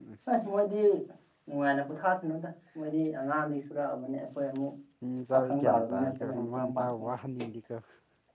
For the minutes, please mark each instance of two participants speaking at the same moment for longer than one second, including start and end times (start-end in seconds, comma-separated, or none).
5.3-6.9